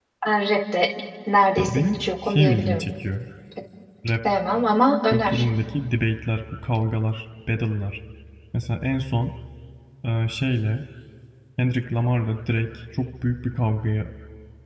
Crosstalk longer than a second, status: present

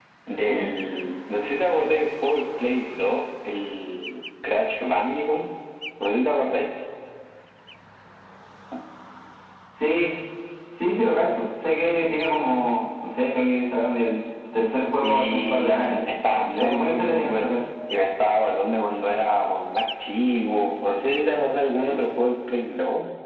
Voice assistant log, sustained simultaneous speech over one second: present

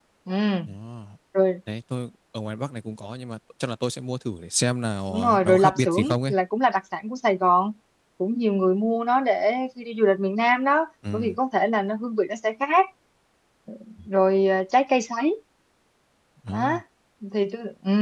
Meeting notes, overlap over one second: present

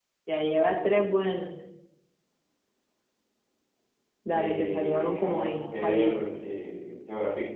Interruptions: present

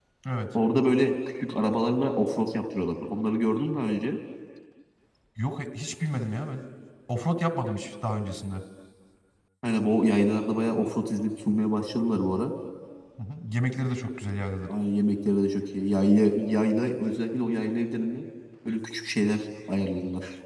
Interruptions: none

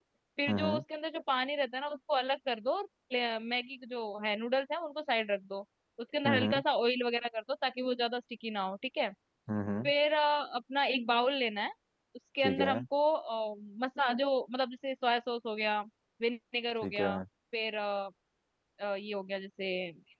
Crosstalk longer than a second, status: none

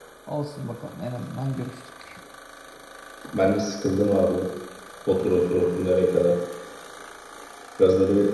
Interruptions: none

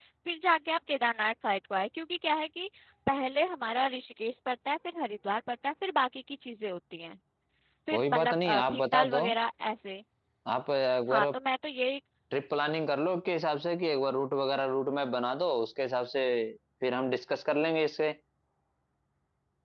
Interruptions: present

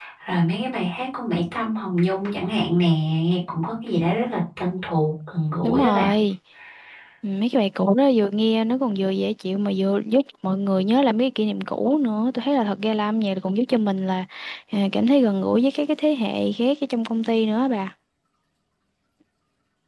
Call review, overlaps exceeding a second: none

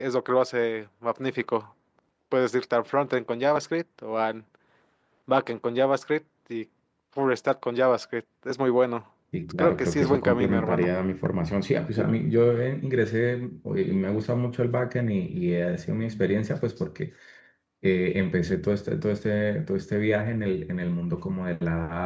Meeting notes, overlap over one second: present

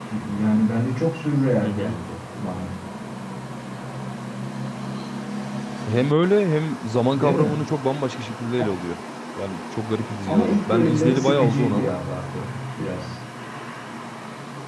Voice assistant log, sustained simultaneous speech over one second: present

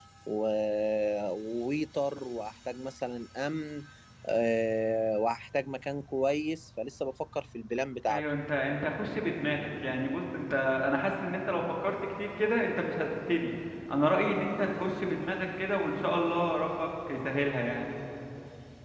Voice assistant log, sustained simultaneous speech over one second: none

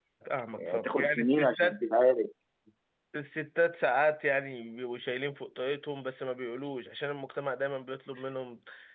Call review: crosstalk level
present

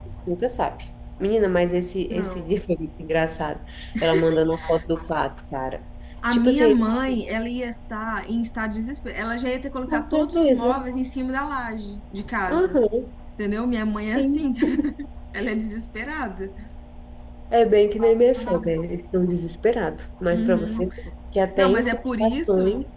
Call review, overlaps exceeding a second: present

